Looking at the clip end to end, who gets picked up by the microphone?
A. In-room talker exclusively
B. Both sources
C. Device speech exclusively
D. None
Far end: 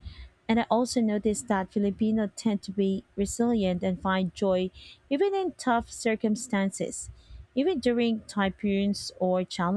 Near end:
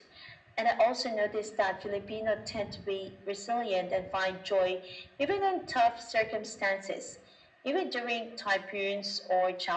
C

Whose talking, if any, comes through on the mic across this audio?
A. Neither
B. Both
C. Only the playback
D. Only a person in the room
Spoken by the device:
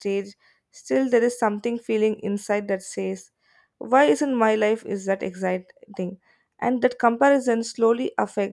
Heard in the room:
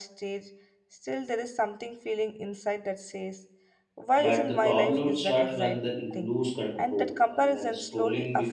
B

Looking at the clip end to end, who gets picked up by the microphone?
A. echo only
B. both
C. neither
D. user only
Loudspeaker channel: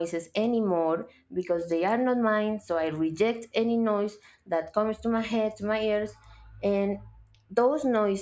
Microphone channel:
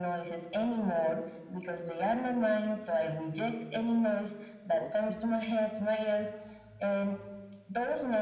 B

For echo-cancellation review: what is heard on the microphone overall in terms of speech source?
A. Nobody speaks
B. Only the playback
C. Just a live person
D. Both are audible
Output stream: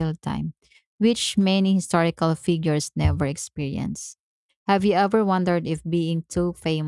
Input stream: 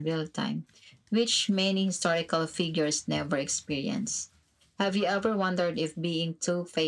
B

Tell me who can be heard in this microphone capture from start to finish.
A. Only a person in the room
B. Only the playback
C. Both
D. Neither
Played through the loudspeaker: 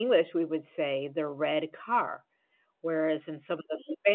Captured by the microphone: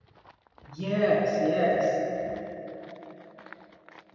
A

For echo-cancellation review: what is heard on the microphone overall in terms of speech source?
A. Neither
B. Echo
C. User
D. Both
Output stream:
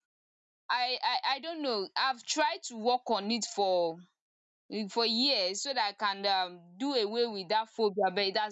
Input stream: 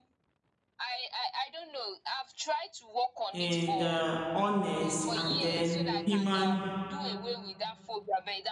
D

